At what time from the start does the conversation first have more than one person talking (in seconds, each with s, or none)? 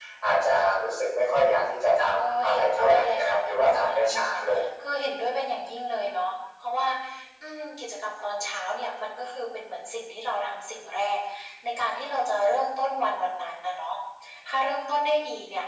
2.1 s